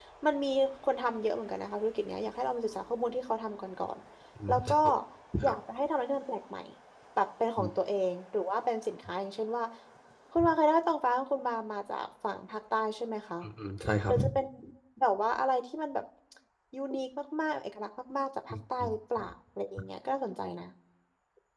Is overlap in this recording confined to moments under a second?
Yes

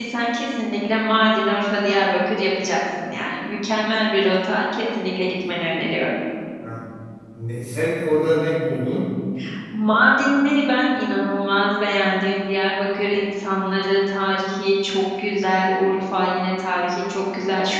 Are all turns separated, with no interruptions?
Yes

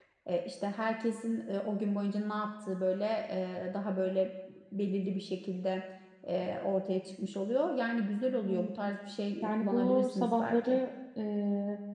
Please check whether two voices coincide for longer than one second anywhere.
Yes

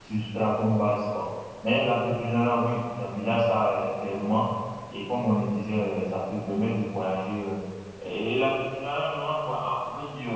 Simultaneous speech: No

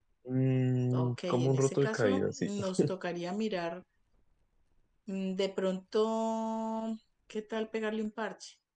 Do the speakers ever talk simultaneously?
Yes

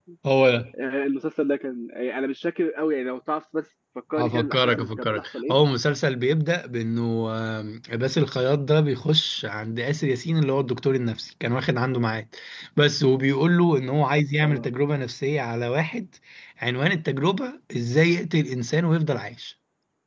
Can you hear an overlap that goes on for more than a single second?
Yes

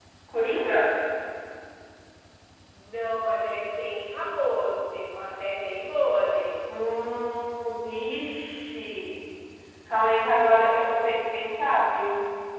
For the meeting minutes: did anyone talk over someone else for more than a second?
No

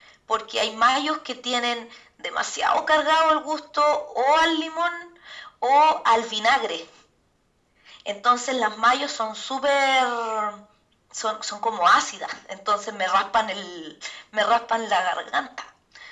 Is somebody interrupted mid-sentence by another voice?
No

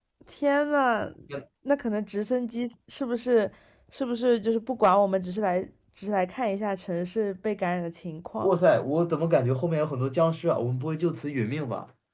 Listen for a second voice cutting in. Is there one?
No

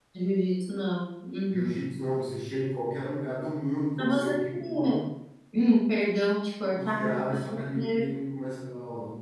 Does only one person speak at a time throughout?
No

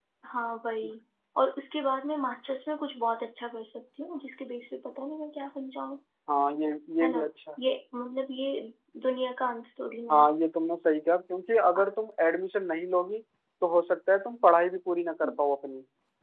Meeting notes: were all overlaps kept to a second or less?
Yes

